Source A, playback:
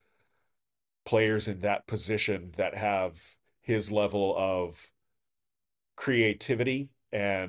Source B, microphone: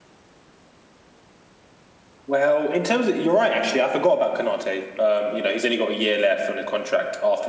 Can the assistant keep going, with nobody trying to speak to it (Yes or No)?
No